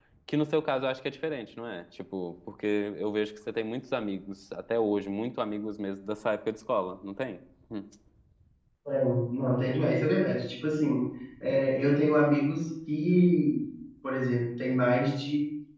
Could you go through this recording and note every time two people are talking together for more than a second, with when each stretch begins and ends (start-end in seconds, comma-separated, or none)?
none